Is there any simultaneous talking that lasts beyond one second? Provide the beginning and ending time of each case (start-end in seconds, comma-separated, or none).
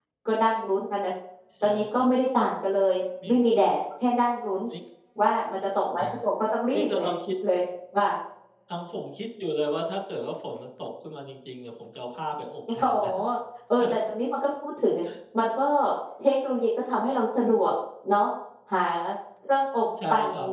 none